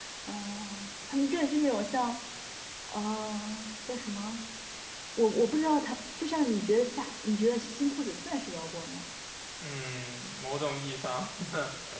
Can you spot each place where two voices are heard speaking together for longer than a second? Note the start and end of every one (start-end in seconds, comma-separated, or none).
none